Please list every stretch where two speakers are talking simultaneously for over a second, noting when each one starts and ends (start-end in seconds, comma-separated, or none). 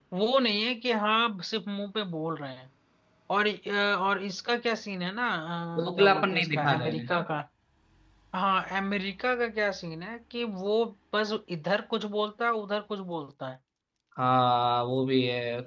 5.9-7.1